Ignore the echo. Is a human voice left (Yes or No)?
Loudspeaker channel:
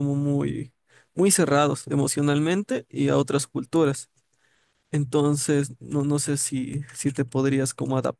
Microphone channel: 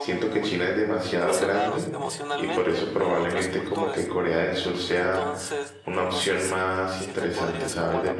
Yes